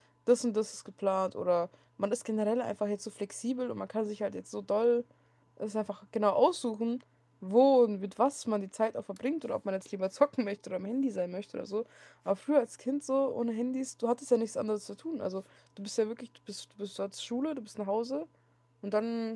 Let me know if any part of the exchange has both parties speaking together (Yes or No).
No